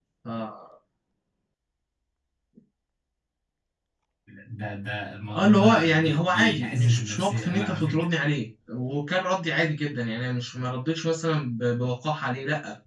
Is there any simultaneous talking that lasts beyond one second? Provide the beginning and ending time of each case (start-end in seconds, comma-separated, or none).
5.3-8.1